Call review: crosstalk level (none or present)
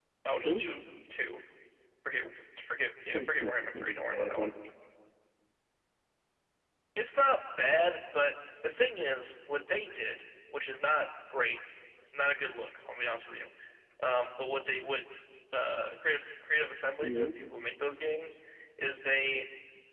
present